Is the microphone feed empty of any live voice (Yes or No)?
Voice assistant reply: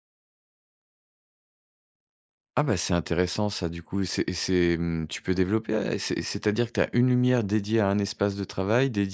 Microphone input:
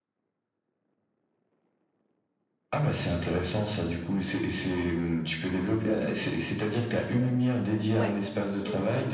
No